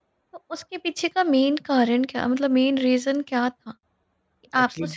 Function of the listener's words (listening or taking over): listening